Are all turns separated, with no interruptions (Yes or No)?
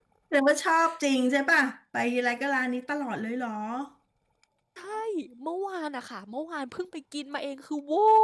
Yes